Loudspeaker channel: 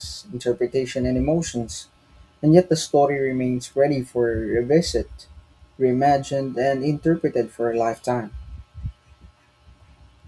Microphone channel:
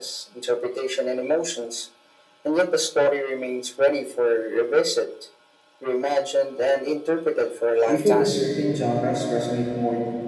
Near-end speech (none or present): present